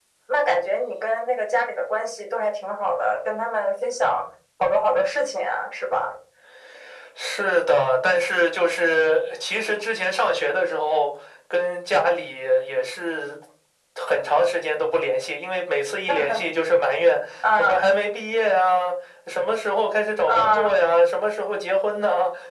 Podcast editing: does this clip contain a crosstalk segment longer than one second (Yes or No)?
No